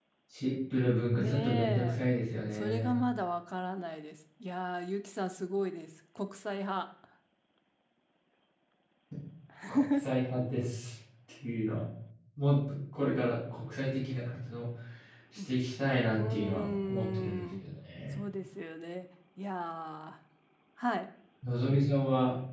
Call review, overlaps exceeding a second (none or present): present